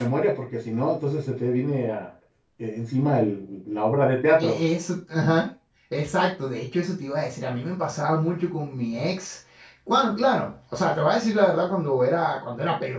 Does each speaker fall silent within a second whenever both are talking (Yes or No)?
Yes